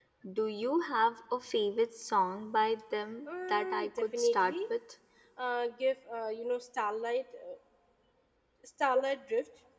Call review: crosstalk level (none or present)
present